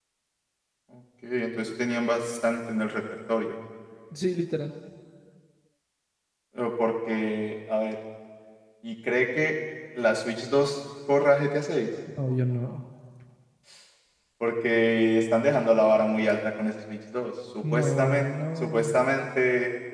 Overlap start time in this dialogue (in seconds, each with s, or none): 17.6 s